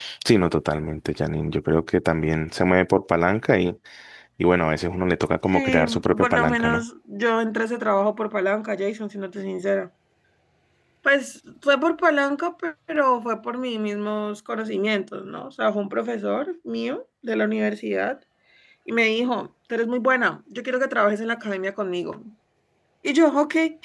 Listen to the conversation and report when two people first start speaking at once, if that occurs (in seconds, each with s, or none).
5.5 s